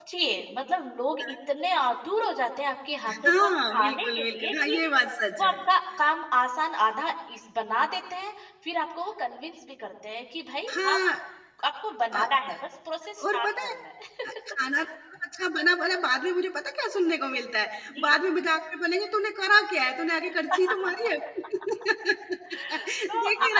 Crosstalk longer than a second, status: present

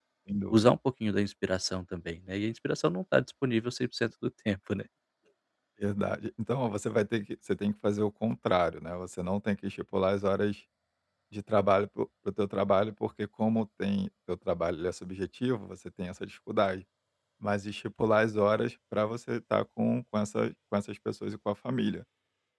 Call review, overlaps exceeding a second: none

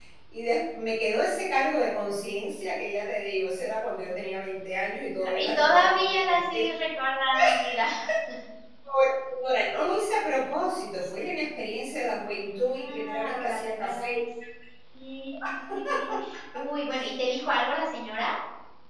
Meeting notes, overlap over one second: present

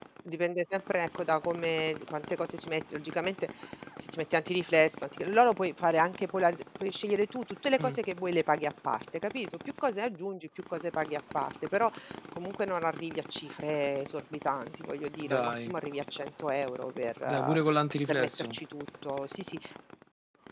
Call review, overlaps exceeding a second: none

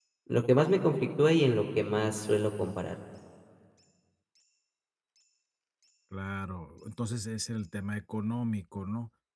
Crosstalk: none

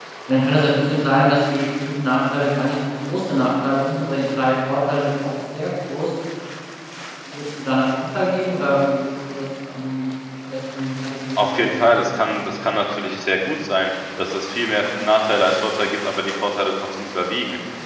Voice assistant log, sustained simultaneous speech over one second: none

